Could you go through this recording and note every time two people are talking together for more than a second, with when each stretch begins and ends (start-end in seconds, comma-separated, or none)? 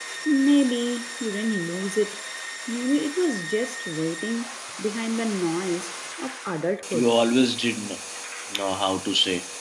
none